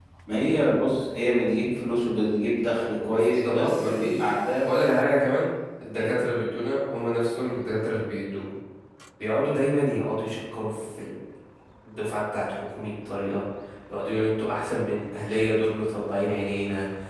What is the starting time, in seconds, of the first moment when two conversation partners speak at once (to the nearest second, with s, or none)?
3 s